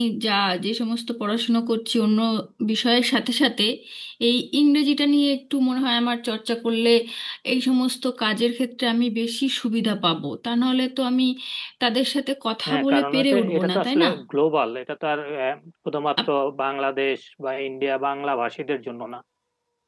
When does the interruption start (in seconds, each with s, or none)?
12.7 s